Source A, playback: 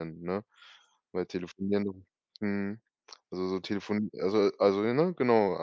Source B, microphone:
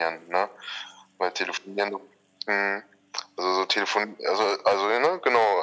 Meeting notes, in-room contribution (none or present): none